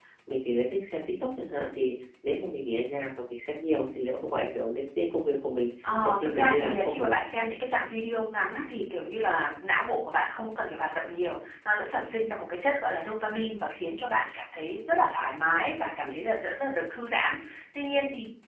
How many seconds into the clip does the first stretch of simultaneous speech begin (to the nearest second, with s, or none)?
6 s